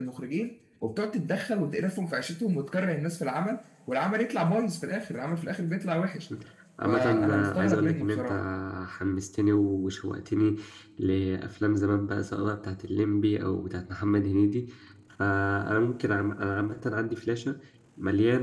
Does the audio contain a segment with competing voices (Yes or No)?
Yes